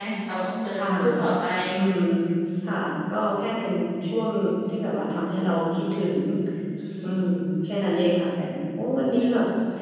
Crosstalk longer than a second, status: none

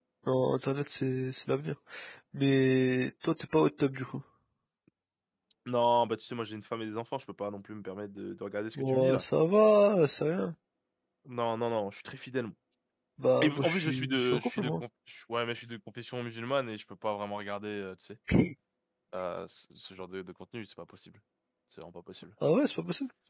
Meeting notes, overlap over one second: present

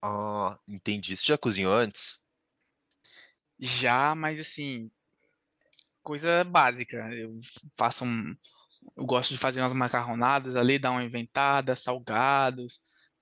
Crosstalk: none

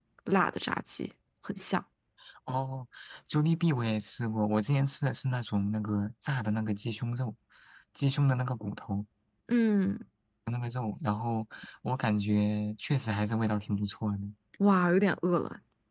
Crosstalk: none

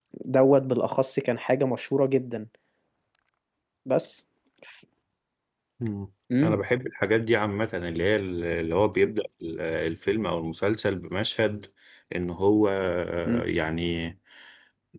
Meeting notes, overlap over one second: none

